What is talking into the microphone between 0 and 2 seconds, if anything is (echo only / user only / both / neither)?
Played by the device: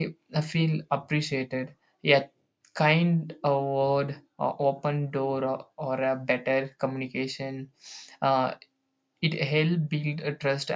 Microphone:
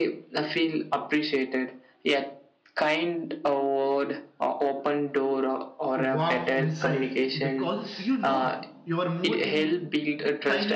echo only